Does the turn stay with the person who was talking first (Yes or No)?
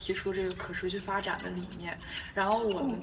Yes